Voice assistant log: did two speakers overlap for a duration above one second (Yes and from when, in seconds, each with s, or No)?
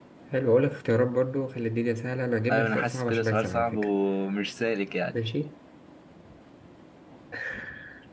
Yes, from 2.5 s